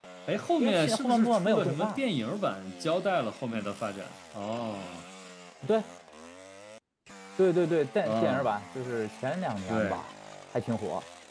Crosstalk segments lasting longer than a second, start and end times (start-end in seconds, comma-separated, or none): 0.6-2.0